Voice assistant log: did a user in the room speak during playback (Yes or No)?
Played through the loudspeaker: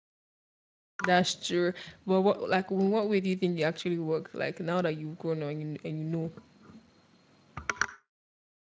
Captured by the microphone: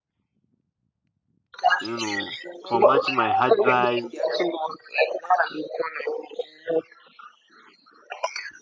Yes